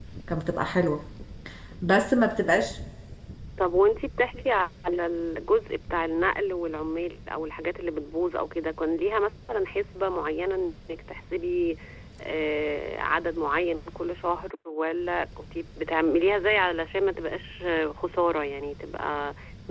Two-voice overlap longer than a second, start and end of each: none

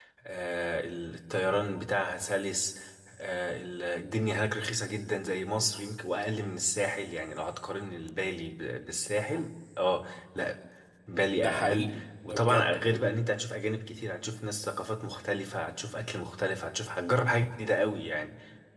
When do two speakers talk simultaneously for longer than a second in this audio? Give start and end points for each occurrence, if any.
11.3-13.0

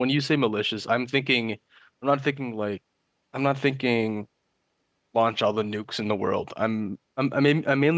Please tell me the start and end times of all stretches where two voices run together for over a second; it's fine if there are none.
none

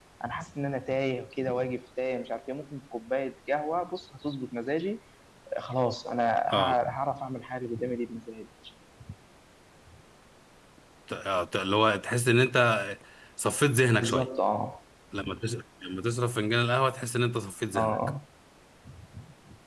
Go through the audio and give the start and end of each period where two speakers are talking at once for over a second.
none

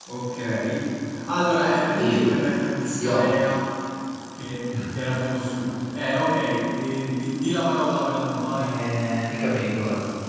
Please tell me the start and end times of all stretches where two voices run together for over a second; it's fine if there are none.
none

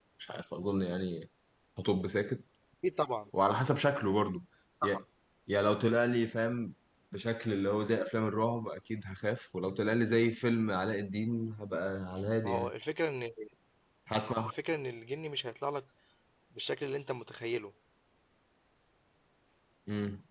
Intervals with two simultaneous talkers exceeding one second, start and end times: none

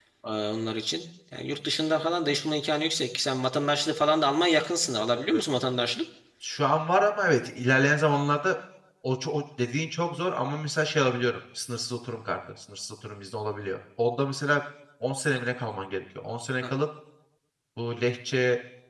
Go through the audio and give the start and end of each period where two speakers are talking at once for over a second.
none

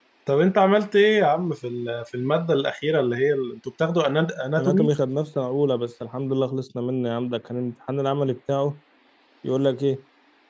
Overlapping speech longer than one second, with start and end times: none

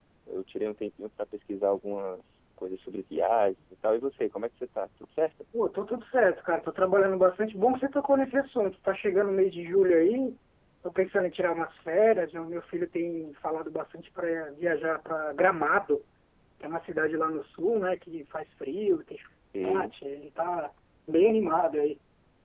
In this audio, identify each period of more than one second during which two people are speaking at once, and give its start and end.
none

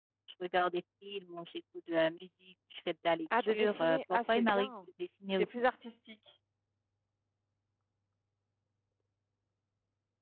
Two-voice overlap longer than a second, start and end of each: 3.4-4.7

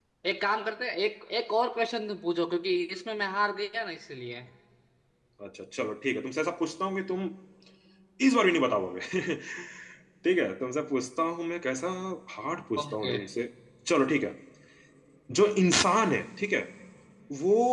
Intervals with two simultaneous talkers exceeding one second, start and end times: none

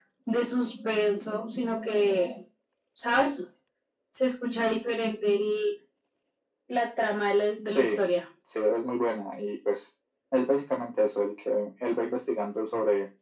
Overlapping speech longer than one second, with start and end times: none

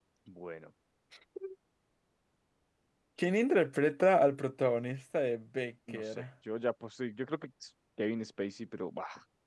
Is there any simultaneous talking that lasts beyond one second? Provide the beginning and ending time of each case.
none

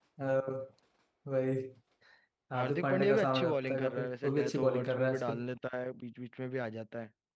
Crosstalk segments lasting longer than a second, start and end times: 2.5-5.4

